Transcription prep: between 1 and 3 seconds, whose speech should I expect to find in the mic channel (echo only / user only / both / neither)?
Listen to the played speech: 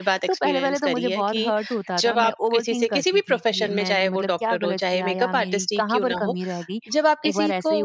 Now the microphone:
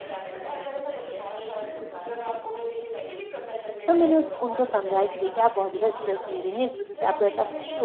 echo only